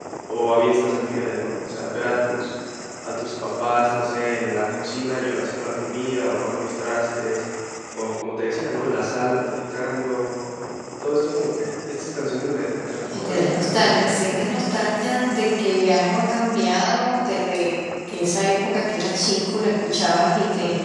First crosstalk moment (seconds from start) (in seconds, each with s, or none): 13.1 s